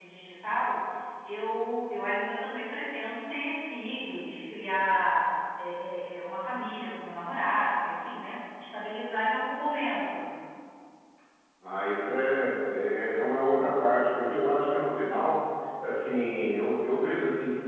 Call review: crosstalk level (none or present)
none